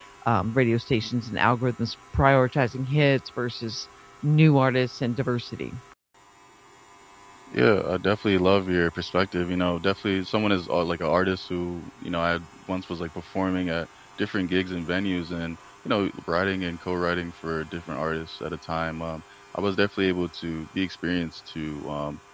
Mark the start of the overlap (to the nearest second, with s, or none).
none